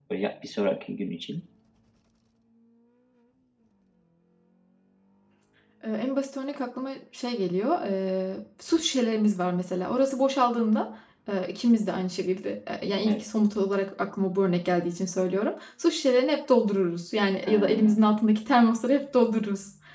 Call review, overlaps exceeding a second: none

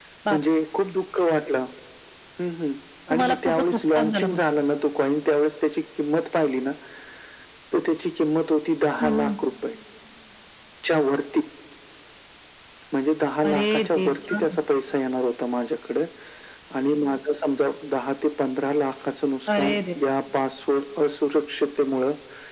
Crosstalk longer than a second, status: present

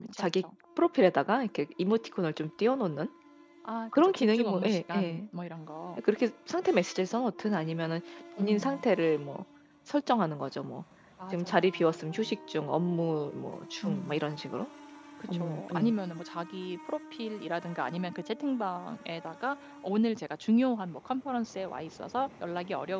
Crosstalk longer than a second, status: present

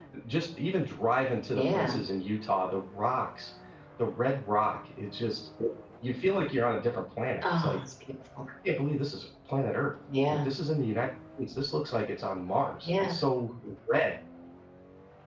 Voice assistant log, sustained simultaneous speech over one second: none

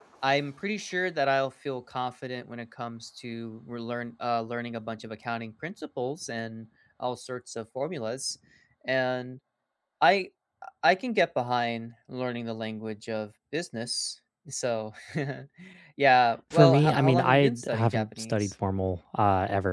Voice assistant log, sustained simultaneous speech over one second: present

